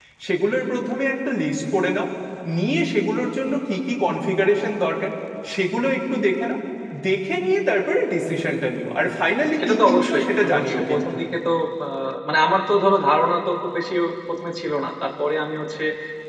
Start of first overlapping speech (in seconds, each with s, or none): 9.6 s